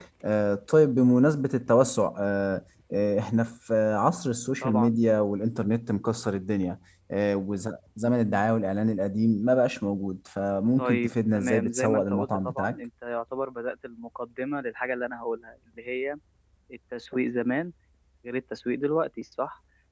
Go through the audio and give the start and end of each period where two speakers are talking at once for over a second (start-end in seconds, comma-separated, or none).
10.8-12.8